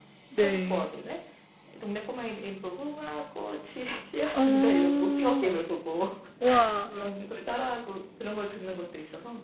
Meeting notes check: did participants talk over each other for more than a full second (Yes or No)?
Yes